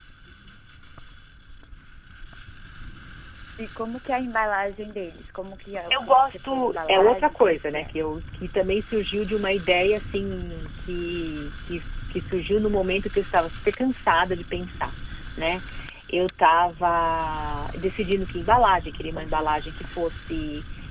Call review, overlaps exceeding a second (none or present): present